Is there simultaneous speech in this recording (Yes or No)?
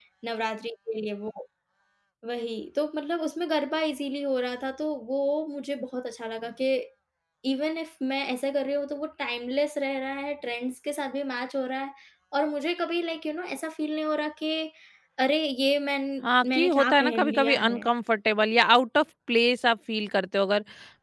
Yes